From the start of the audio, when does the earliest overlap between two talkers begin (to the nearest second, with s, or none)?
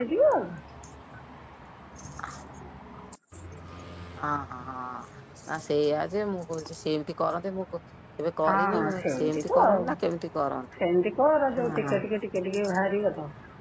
8 s